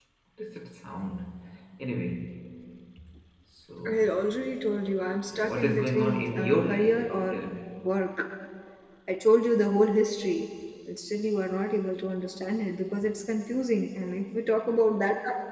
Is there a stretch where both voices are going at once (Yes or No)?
Yes